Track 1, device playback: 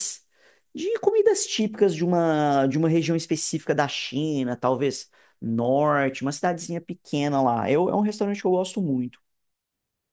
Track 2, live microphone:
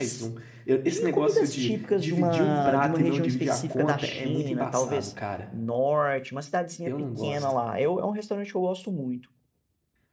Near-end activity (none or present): present